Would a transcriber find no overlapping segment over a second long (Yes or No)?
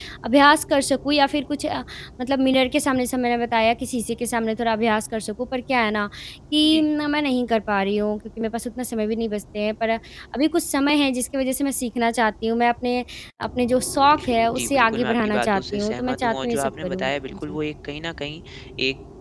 No